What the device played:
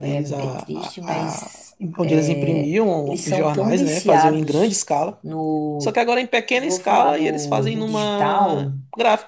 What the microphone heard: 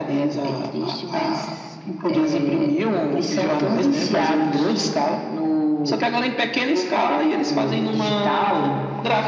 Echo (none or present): present